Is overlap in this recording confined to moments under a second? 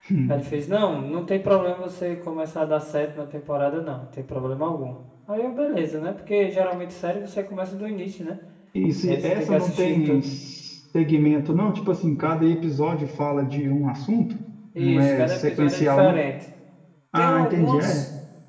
No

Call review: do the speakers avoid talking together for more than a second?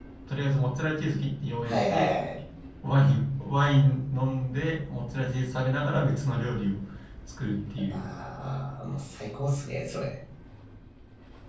Yes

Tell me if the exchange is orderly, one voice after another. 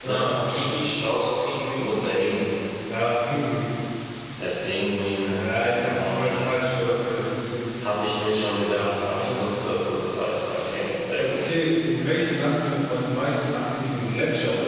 No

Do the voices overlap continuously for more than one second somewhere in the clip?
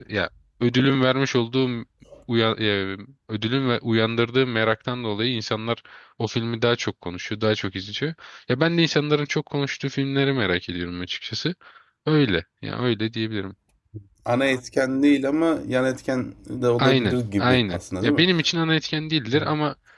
Yes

